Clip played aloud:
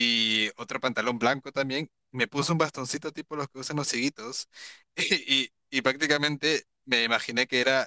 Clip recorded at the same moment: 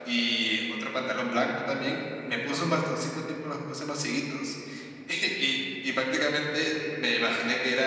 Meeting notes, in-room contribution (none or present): none